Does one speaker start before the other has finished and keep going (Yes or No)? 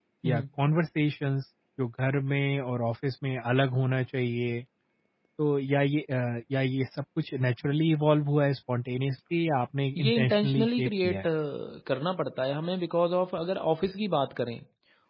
Yes